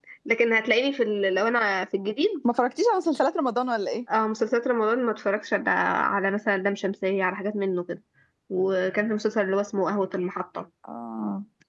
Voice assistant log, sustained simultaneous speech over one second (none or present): none